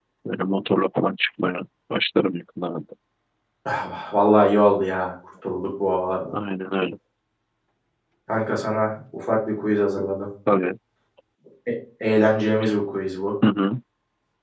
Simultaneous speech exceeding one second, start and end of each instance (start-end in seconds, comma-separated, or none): none